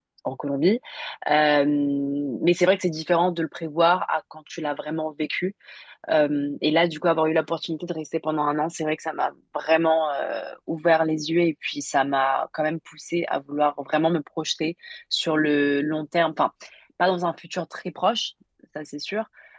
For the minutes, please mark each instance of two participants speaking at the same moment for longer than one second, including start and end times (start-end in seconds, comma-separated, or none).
none